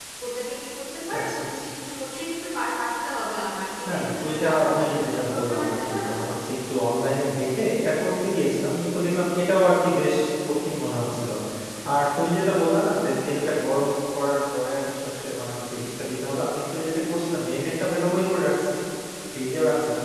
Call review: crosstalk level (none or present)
present